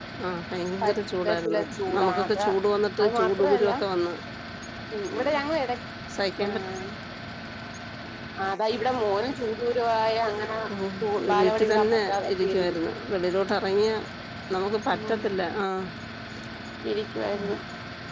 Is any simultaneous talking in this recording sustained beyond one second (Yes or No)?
Yes